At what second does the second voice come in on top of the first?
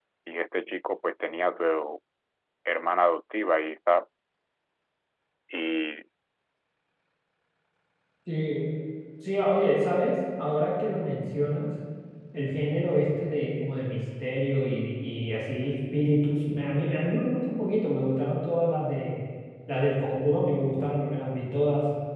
none

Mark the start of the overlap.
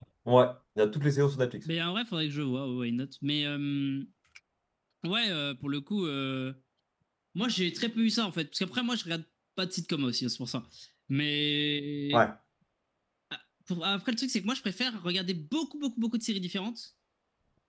none

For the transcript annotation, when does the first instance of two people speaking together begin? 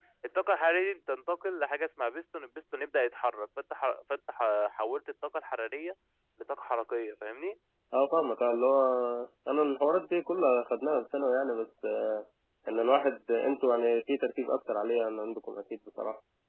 none

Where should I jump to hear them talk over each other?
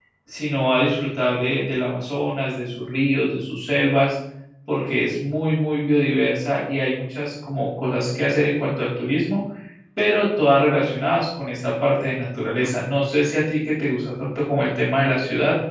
none

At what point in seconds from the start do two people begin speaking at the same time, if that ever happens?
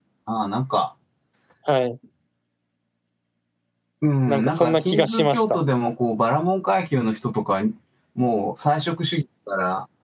4.3 s

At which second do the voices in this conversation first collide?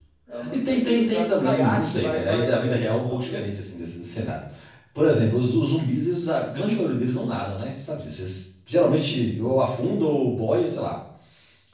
0.5 s

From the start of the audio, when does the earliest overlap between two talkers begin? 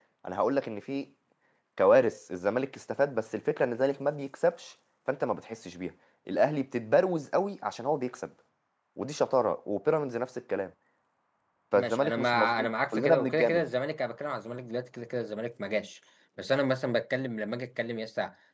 11.7 s

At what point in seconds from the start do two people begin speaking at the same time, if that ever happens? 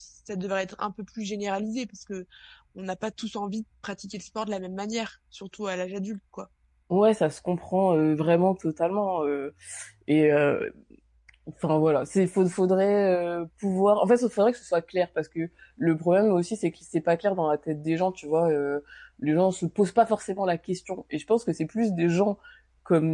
none

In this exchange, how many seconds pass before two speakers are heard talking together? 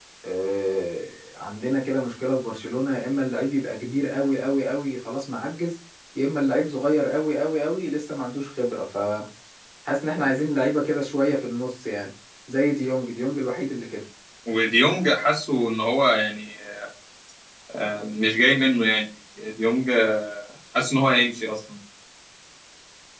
none

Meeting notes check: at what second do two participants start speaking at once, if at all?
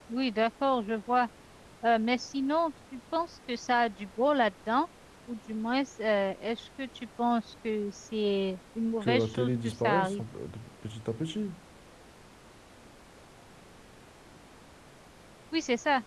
9.0 s

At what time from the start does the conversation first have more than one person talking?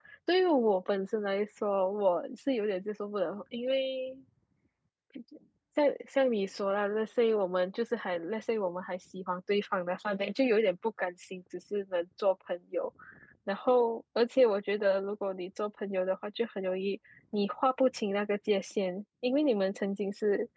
none

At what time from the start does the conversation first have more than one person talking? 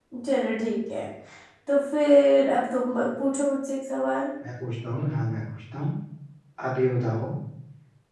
none

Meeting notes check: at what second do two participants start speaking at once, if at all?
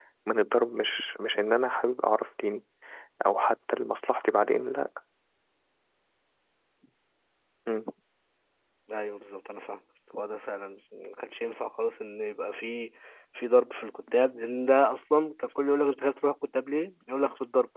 none

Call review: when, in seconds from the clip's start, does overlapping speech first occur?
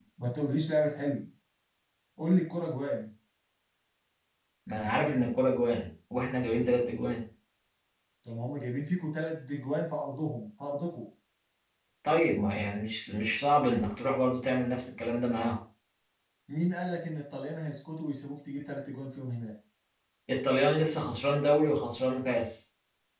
none

